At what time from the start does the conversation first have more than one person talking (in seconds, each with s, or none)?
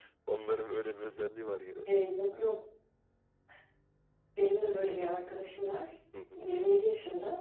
none